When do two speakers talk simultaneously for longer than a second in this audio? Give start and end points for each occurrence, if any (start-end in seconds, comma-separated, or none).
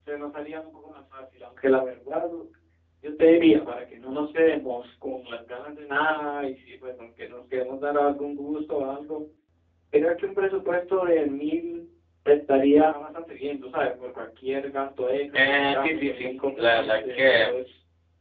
15.3-17.5